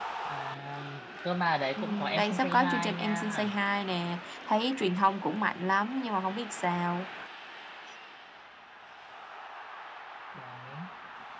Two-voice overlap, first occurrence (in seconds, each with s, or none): 1.8 s